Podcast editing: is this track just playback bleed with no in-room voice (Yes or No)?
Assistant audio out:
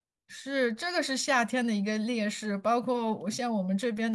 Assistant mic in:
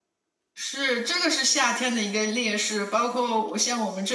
Yes